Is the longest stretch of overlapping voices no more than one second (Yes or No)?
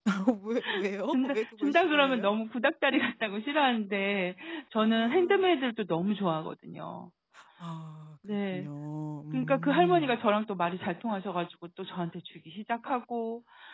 No